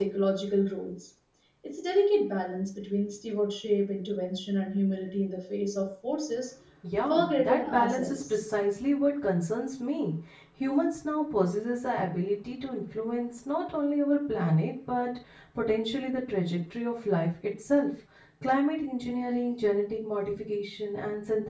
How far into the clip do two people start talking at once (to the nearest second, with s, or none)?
7 s